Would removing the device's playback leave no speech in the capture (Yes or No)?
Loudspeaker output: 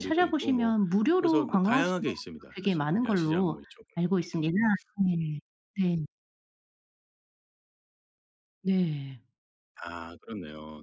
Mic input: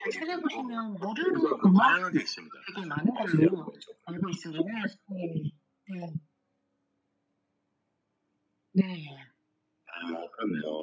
Yes